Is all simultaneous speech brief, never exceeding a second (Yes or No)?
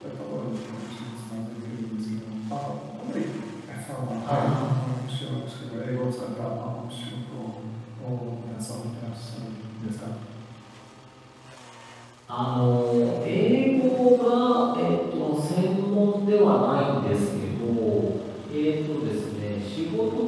Yes